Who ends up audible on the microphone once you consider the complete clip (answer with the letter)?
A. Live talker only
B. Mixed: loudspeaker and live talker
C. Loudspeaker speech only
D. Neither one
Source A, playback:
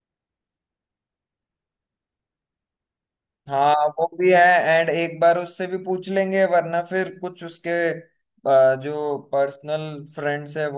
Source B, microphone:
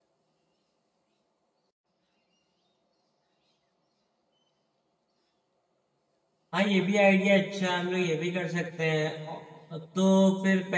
A